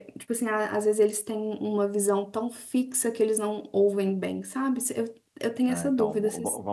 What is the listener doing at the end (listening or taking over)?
taking over